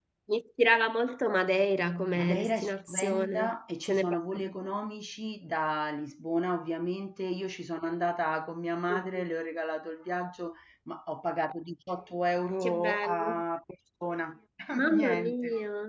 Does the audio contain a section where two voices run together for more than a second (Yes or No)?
Yes